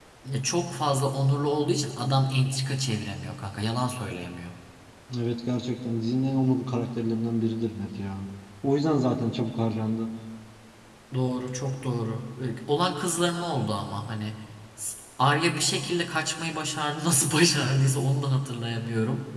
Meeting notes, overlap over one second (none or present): none